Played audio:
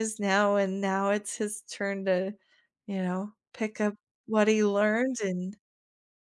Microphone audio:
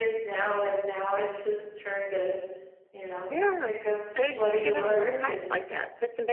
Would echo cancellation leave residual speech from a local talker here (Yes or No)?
Yes